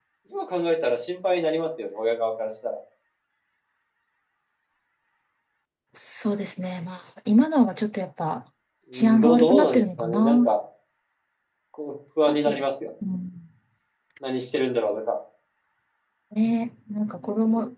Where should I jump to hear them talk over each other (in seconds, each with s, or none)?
8.9 s